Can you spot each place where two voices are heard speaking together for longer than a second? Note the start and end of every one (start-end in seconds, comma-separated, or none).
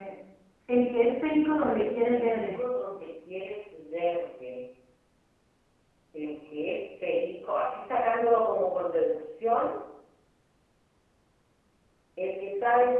1.3-2.6